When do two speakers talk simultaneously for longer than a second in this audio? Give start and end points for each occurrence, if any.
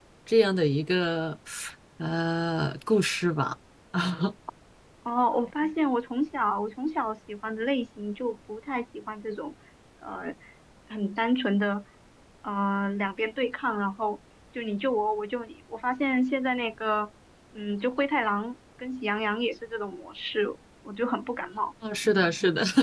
none

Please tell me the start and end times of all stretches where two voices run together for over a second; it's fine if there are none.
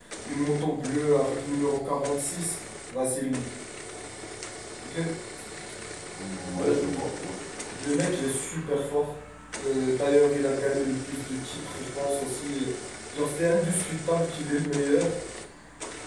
none

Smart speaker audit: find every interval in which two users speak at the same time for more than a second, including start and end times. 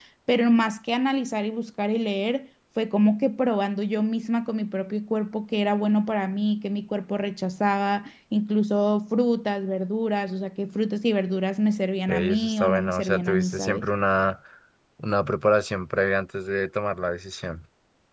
12.1-13.9

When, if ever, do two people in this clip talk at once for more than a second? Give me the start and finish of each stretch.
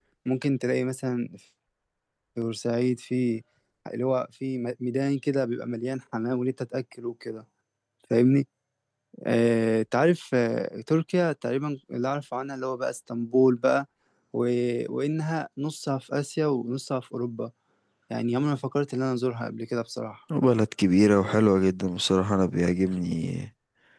none

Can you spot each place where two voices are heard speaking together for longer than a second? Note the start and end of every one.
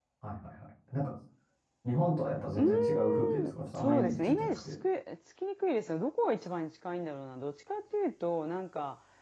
2.5-4.7

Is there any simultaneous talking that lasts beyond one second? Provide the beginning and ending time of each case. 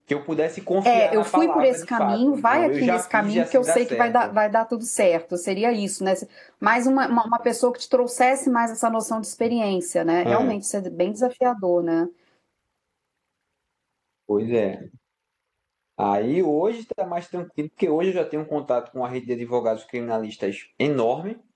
0.9-4.3

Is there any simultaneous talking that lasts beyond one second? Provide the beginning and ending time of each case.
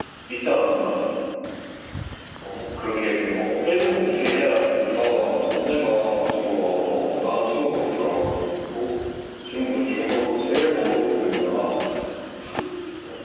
none

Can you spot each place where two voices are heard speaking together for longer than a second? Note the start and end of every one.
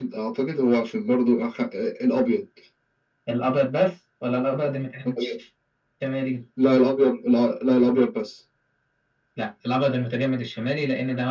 none

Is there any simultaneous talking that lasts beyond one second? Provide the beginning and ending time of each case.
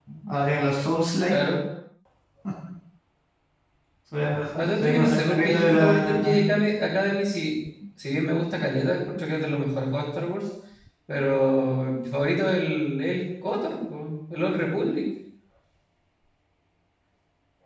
4.5-6.5

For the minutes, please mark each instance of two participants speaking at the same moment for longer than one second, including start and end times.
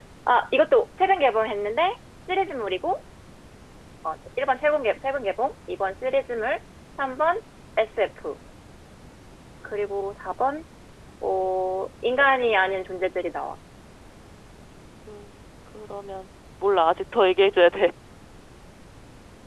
none

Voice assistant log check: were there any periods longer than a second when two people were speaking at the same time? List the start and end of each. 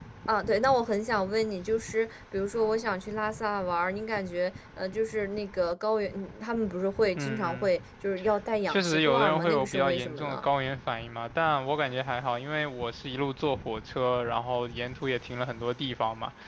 8.7-10.4

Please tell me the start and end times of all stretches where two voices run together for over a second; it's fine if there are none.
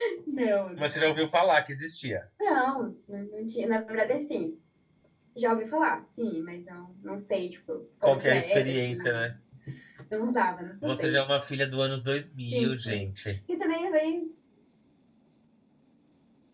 8.0-9.3

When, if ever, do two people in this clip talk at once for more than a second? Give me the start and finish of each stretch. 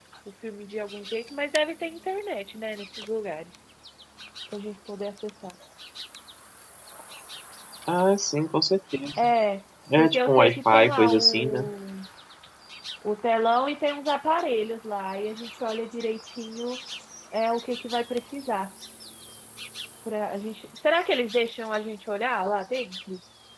10.0-11.7

